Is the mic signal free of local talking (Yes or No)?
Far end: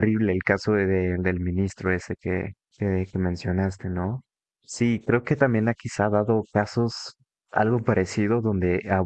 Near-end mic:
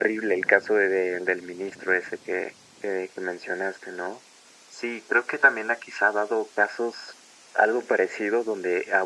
Yes